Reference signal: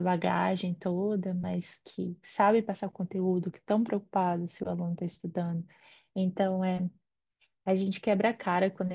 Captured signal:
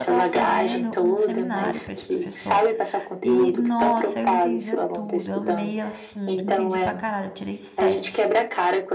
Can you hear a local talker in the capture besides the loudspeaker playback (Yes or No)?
Yes